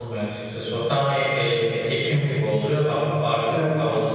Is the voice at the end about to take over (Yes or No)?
No